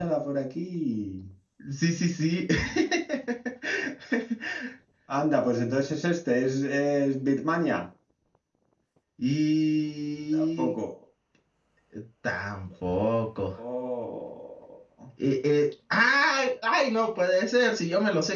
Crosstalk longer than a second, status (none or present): none